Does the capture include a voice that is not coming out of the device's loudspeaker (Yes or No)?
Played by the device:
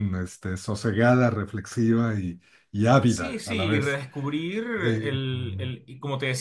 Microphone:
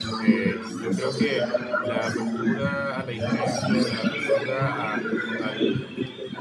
Yes